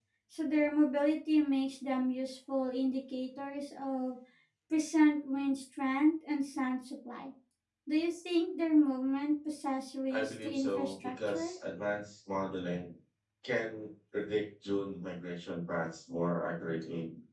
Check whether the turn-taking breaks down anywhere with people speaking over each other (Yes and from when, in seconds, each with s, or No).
Yes, from 10.1 s